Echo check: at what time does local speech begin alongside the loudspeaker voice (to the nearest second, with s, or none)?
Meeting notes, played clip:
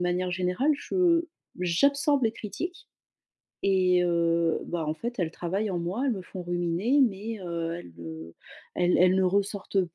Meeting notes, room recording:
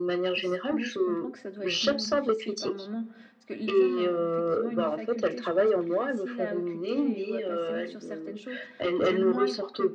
0 s